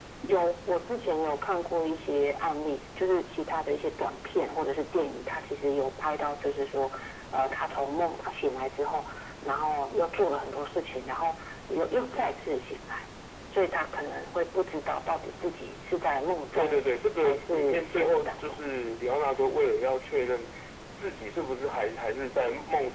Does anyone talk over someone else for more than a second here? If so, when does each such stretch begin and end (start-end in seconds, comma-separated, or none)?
17.2-18.6